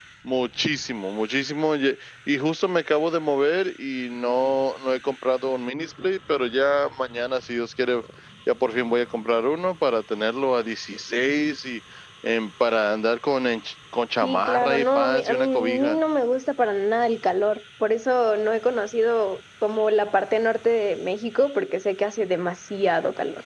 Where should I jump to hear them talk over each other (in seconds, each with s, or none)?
14.2 s